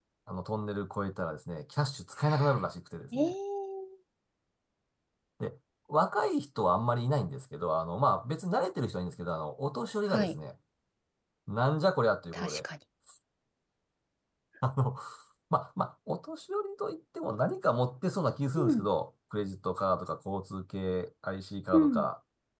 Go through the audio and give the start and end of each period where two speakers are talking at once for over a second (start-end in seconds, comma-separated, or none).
none